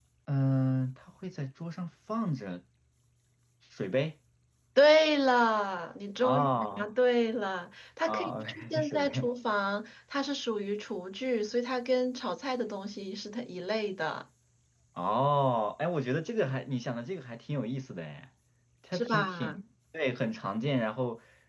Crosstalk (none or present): present